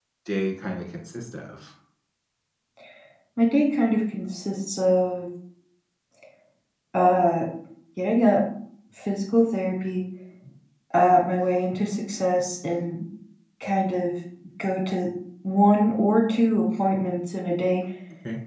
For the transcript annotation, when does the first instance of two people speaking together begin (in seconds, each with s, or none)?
none